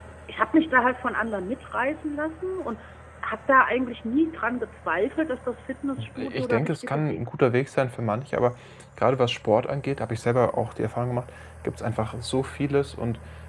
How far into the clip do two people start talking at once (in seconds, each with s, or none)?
6.0 s